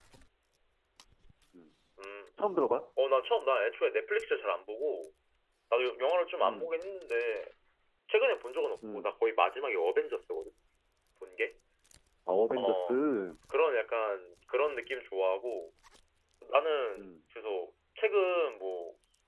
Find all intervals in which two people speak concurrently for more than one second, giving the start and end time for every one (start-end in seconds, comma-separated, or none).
none